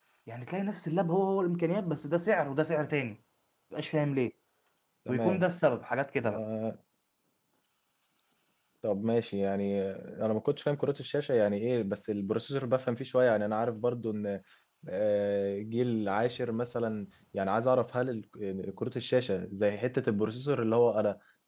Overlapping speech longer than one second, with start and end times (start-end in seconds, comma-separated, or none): none